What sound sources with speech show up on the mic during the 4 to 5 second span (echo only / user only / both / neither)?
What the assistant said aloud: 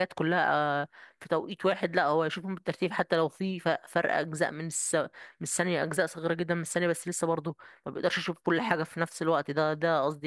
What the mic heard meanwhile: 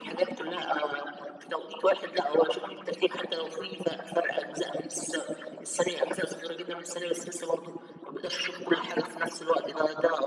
echo only